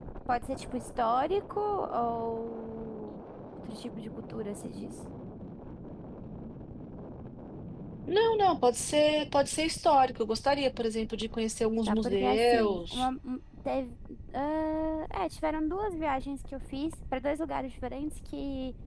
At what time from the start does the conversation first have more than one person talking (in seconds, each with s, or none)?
11.8 s